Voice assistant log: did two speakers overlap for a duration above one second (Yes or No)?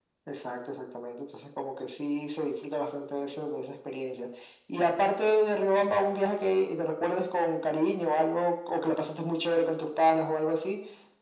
No